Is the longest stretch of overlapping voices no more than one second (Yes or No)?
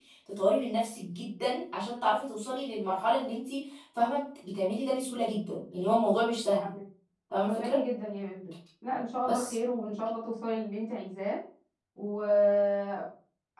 Yes